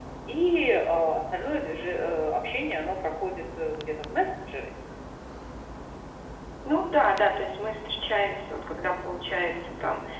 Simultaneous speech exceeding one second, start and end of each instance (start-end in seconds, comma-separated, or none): none